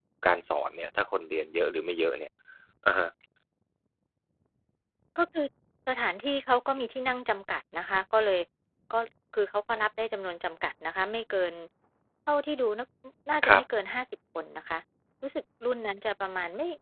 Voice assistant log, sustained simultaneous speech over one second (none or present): none